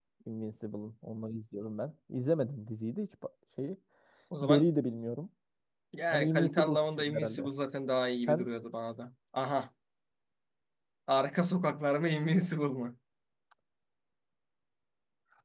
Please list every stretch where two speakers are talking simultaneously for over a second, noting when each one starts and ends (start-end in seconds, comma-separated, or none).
6.1-7.5